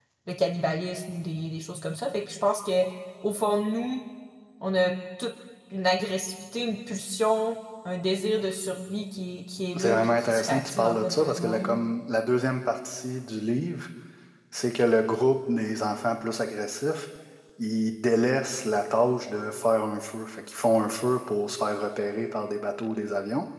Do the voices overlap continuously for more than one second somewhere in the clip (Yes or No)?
Yes